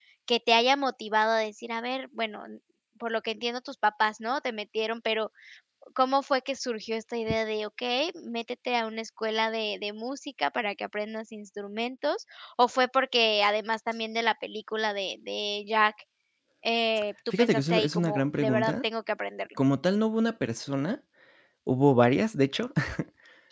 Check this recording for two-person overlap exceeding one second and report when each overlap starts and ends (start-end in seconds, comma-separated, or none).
17.4-18.8